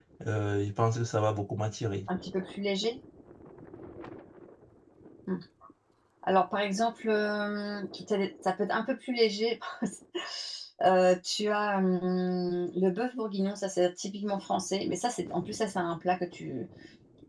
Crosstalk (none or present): none